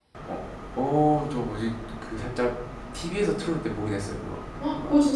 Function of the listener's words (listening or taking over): taking over